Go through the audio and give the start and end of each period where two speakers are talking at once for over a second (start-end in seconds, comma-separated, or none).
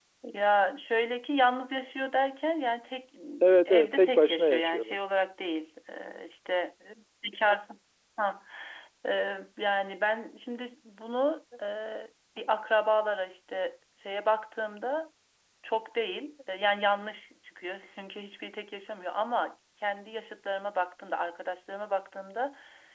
3.6-5.0